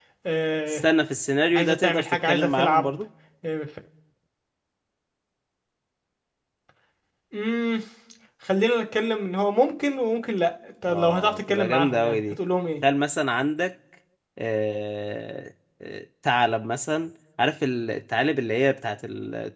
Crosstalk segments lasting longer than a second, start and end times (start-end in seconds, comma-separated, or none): 1.6-3.0, 10.9-12.4